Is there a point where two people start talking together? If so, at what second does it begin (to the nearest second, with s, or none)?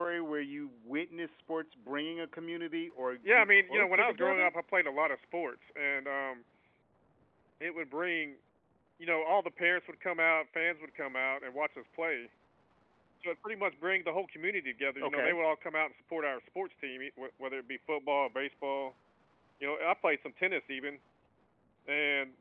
3 s